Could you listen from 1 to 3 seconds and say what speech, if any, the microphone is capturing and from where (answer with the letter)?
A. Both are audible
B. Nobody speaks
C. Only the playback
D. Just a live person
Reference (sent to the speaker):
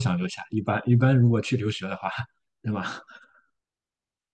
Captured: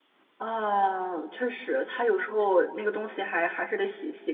D